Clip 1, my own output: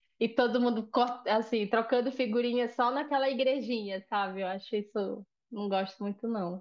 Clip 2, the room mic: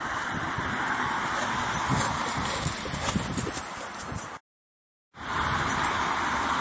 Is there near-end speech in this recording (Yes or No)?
No